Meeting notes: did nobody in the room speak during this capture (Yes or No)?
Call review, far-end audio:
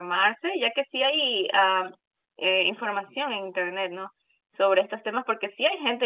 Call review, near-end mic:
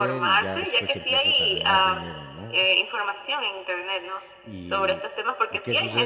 No